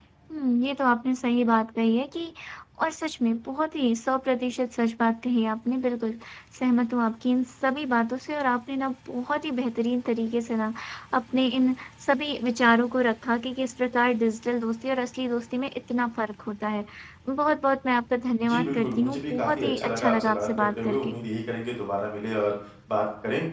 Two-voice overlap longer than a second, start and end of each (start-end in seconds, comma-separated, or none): 18.4-21.2